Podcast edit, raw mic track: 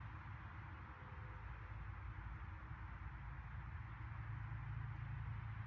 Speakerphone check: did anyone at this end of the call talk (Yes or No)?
No